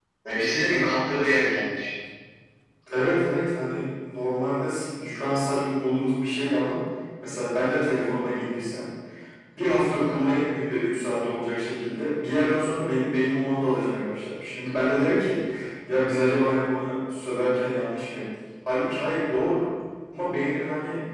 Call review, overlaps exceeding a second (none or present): none